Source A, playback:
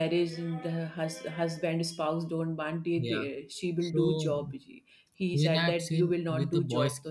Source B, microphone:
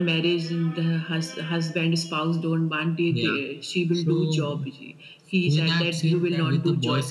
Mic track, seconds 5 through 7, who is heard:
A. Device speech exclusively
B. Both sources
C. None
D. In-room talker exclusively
B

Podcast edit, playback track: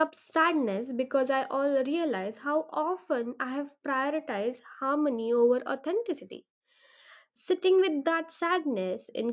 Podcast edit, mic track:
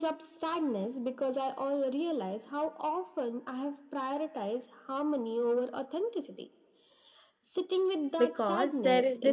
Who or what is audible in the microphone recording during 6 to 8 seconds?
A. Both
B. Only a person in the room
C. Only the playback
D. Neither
C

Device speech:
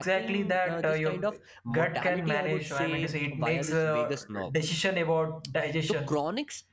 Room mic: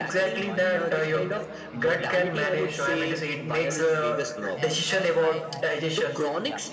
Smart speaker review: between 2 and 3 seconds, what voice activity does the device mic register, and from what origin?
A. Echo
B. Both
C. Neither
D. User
B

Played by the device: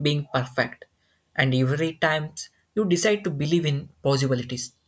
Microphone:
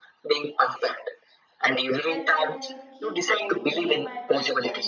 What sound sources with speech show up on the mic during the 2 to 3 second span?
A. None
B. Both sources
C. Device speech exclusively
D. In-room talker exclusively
B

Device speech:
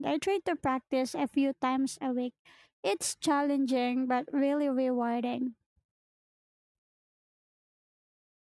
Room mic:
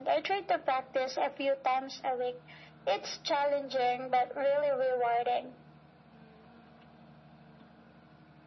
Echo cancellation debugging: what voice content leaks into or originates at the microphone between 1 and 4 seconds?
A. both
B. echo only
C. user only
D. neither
B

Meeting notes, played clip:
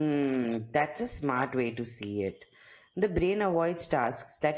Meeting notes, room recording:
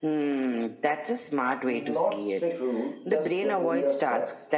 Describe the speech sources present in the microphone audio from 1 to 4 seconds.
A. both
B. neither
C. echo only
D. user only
A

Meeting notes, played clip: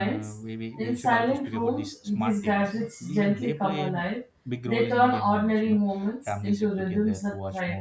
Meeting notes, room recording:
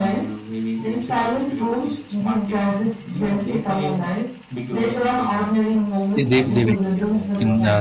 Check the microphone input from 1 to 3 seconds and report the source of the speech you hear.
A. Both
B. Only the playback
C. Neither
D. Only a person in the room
B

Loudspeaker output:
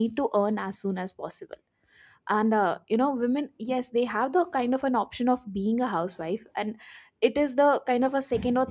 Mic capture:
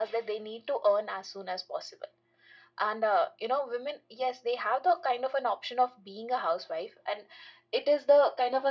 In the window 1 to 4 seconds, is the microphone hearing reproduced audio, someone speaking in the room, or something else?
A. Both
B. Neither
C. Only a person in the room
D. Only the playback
D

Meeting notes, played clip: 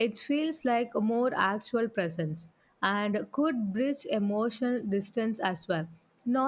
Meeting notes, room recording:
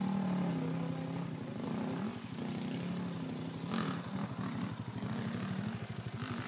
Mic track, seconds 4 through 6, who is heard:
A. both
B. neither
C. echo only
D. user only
B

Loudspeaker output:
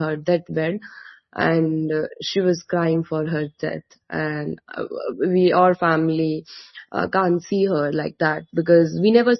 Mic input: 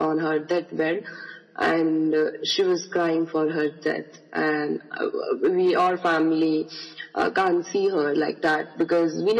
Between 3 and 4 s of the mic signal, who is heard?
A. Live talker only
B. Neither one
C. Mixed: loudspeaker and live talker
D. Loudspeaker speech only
D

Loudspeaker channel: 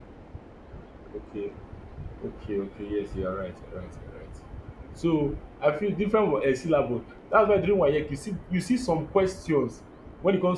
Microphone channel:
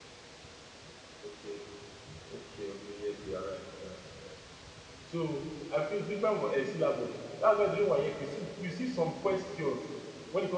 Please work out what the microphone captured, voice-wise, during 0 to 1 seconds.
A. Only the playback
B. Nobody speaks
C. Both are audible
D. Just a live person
B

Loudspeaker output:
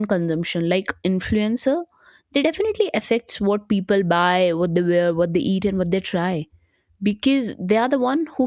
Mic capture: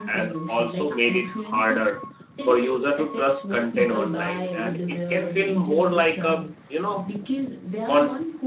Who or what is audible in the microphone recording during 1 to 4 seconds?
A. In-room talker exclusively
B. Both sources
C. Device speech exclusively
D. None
B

